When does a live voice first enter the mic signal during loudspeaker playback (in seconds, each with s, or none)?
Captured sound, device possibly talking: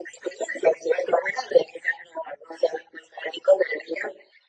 none